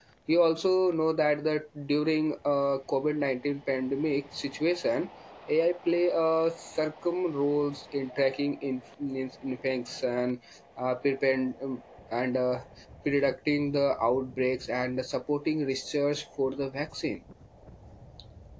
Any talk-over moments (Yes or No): No